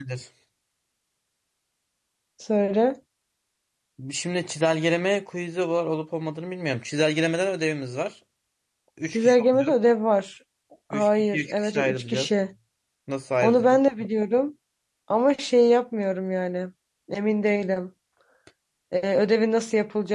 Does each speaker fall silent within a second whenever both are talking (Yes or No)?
No